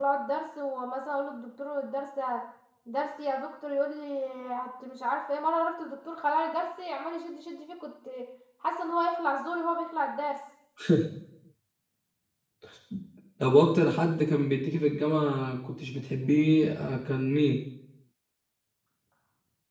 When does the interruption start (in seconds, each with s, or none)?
none